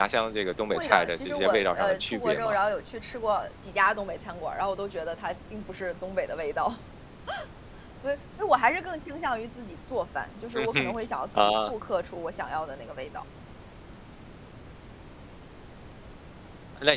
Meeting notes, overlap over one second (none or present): present